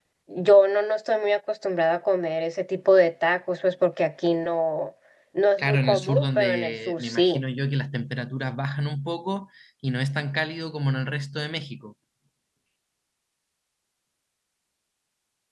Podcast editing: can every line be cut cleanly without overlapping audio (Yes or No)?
No